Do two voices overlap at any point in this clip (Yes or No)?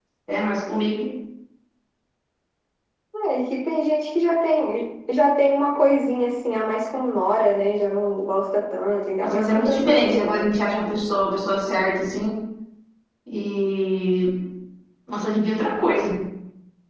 Yes